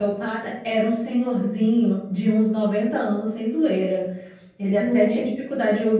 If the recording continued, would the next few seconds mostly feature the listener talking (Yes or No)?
No